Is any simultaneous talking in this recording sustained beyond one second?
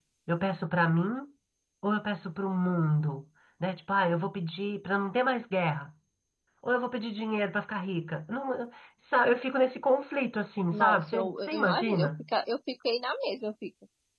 Yes, from 10.7 s

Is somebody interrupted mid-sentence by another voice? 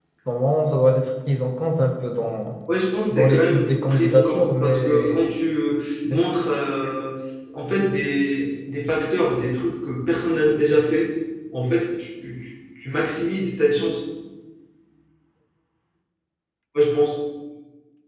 Yes, from 3.1 s

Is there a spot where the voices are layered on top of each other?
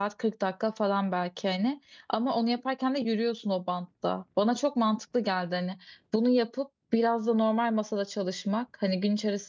No

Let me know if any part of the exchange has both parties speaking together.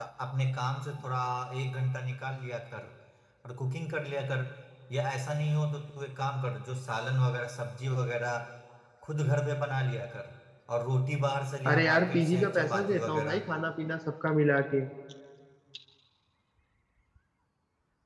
Yes, from 11.7 s

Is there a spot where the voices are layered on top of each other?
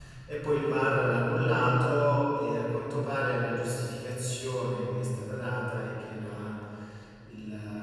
No

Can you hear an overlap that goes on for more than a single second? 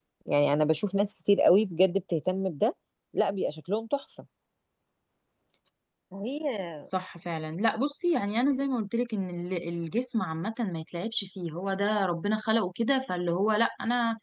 No

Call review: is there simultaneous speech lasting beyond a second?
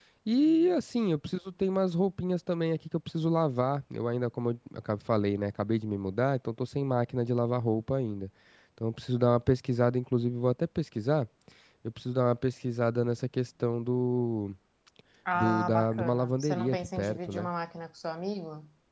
Yes, from 15.4 s

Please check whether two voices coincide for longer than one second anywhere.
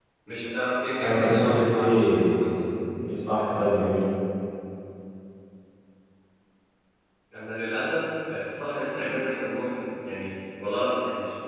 Yes, from 1.0 s

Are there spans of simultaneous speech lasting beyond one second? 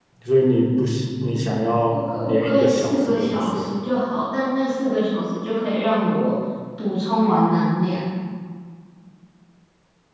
Yes, from 1.9 s

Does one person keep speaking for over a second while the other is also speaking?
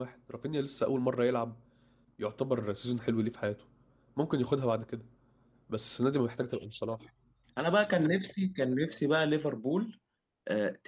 No

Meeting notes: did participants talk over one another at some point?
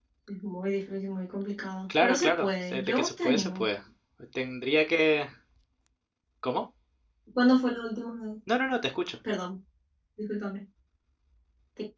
Yes, from 1.9 s

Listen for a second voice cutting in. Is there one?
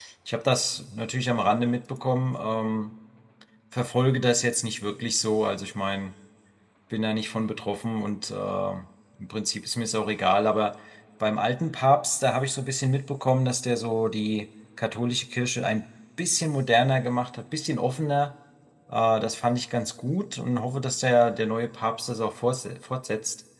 No

